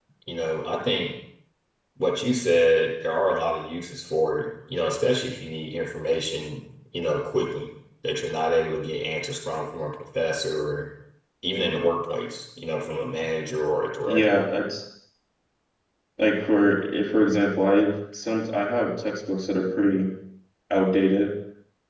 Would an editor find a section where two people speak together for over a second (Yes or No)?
No